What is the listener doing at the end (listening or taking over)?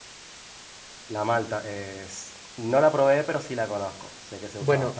taking over